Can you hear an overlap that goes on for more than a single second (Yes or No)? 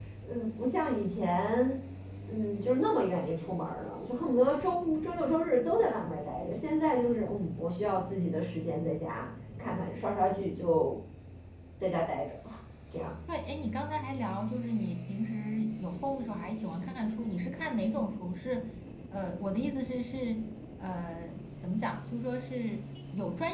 No